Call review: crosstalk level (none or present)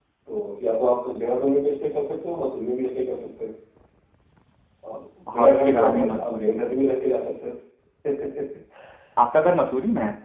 present